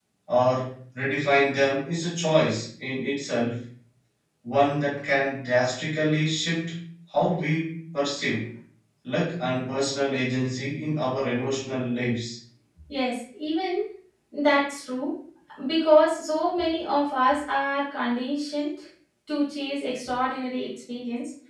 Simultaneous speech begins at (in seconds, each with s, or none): none